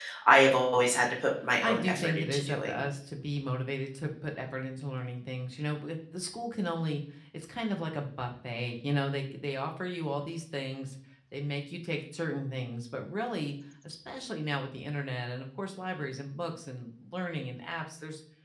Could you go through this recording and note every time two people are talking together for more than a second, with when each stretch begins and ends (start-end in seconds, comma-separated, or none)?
1.6-2.8